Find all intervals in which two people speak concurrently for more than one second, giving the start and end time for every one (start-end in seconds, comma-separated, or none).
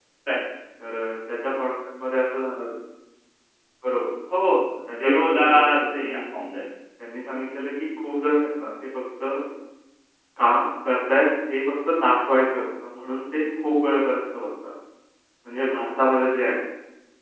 5.0-6.2